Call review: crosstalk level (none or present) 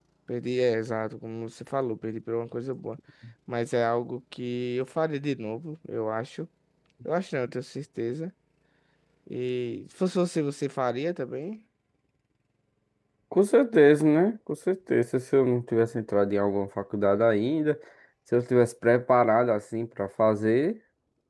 none